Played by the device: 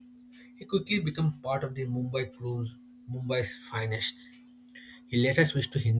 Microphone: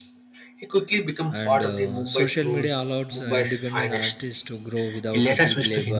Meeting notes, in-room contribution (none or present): present